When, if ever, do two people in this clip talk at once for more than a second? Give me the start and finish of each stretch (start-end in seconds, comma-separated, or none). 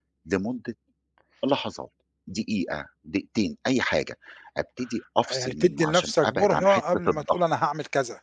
5.3-7.4